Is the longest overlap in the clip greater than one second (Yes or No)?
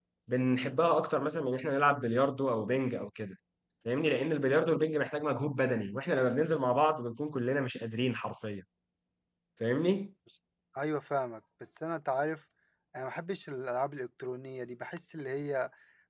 No